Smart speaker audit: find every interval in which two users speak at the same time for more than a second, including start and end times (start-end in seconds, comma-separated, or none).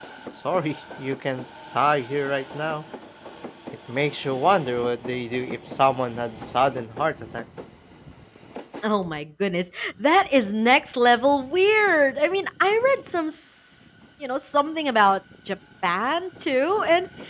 none